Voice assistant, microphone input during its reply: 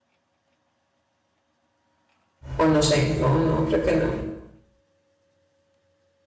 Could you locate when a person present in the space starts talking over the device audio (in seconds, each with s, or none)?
2.6 s